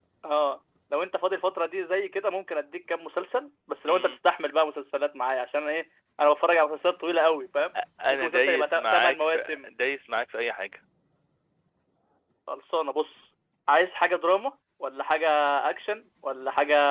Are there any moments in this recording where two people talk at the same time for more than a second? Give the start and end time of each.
8.1-9.7

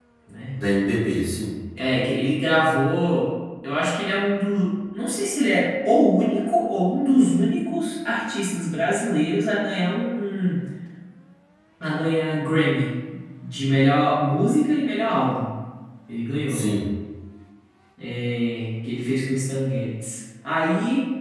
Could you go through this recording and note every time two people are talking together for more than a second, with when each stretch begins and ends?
none

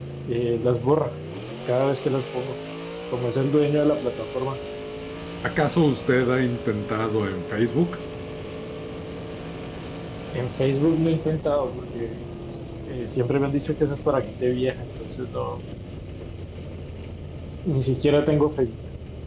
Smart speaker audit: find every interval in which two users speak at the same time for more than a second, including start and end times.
none

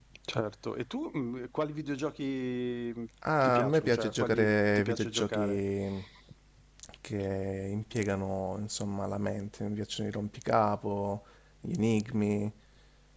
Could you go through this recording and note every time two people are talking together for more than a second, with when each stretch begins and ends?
3.4-5.6

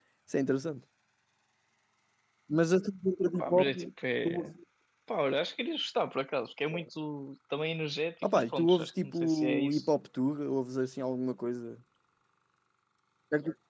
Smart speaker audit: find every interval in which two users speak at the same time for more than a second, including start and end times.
8.3-9.9

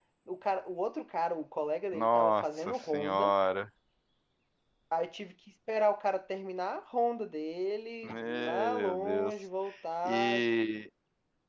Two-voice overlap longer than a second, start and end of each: 1.9-3.3, 8.0-9.5

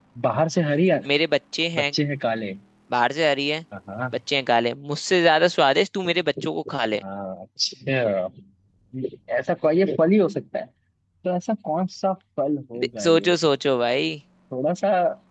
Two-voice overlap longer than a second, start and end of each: none

